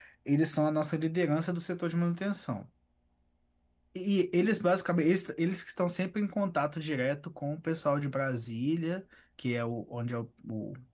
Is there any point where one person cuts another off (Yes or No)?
No